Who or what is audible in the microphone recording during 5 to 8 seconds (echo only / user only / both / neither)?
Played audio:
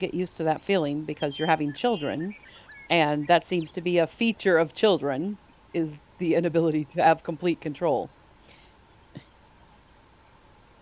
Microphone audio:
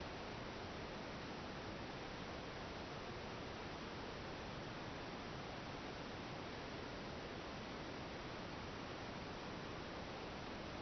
neither